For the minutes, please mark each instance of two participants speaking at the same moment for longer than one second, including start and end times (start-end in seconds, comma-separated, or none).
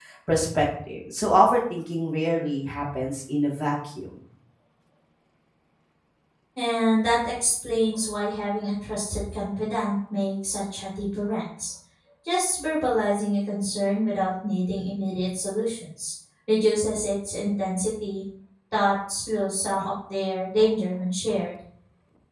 none